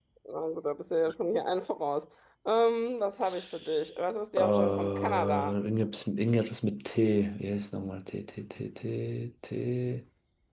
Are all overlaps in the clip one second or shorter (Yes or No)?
No